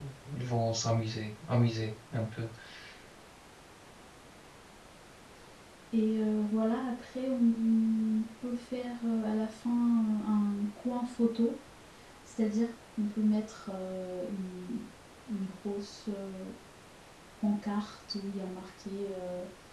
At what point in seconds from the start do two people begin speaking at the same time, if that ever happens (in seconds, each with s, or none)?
none